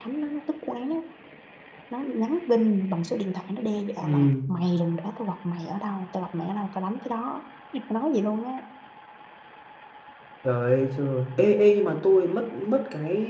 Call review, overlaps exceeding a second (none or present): none